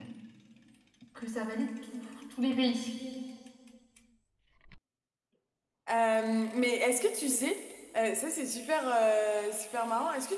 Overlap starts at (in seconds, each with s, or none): none